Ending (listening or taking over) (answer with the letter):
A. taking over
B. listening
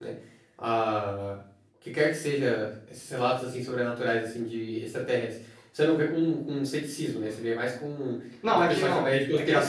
A